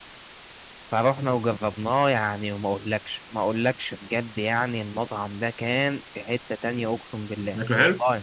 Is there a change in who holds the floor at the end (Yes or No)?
No